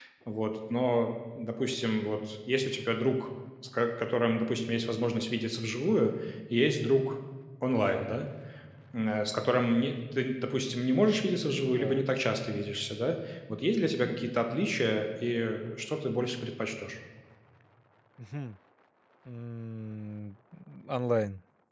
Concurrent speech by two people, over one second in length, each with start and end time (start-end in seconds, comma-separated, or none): none